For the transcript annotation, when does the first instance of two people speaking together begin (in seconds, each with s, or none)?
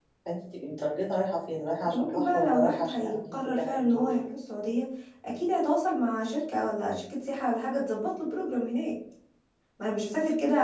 1.8 s